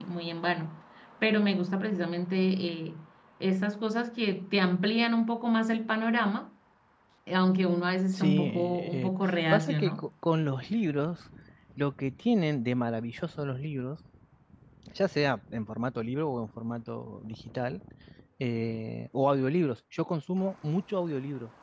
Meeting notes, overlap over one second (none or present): present